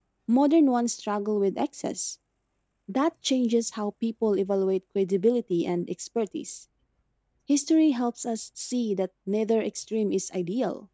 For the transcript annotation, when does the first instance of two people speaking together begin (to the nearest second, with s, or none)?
none